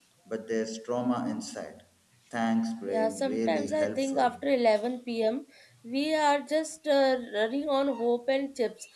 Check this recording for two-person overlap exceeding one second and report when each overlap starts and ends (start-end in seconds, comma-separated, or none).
2.9-4.3